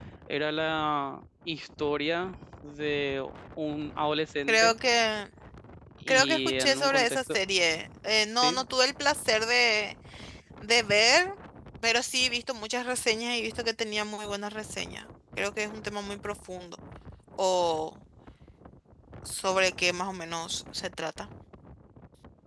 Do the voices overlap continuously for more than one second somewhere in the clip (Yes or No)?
Yes